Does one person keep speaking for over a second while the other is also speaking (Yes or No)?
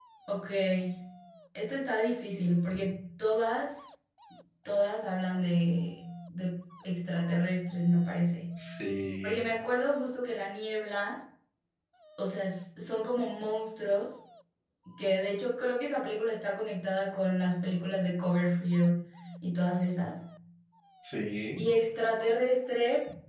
No